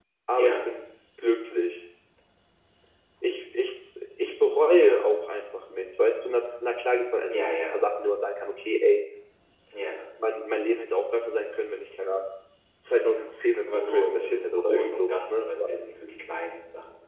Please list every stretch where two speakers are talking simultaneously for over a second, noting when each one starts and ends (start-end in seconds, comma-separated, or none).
13.7-15.7